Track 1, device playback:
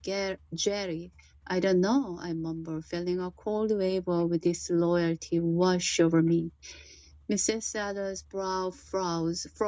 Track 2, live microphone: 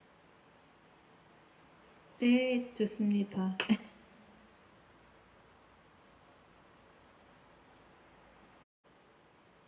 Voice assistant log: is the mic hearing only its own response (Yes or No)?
No